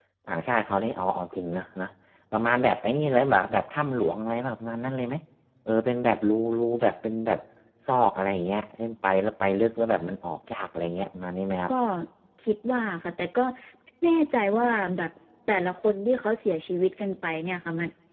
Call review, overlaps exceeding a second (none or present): none